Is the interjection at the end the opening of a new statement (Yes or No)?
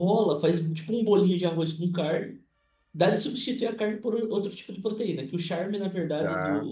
No